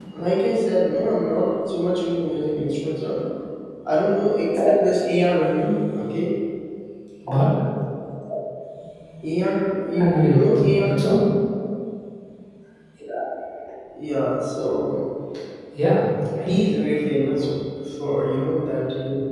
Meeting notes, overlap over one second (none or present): present